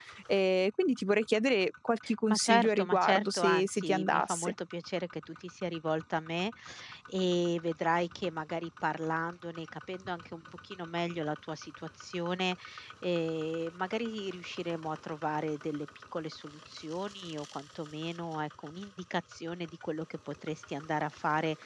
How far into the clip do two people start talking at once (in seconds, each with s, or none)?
2.0 s